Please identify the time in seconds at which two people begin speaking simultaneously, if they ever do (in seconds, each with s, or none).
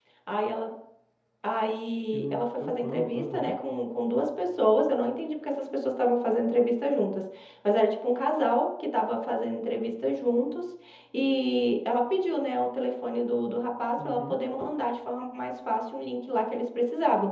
2.1 s